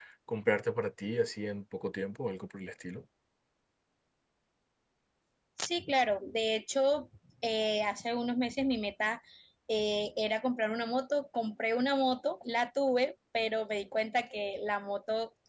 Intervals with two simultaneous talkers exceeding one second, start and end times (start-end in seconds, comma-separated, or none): none